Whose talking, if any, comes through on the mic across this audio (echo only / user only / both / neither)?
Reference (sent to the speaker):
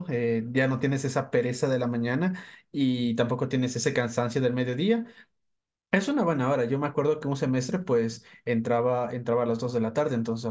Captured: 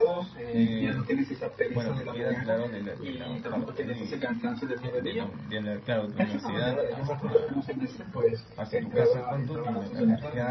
both